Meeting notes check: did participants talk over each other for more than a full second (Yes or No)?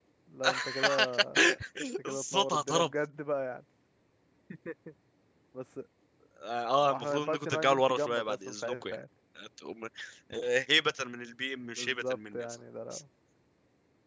Yes